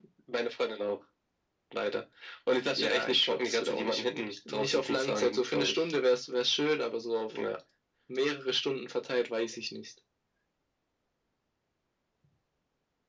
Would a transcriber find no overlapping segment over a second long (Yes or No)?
No